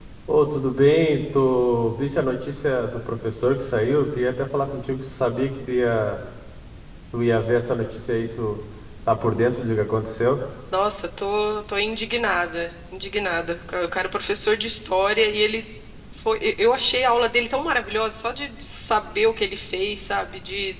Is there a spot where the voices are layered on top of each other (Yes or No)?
No